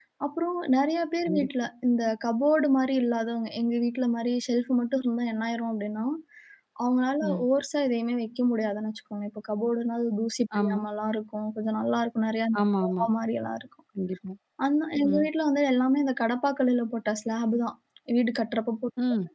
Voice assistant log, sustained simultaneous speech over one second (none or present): none